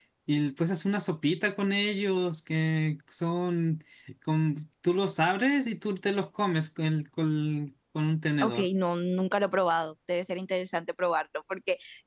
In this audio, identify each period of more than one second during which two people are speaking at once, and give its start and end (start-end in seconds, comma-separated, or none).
none